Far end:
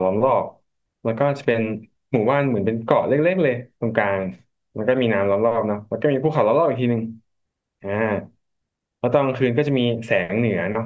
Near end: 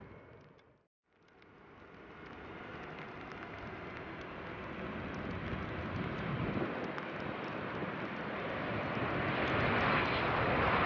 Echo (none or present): none